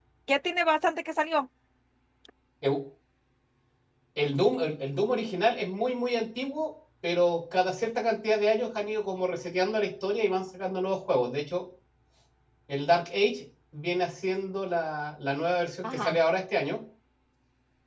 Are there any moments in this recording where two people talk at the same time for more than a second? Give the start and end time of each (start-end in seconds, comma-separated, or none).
none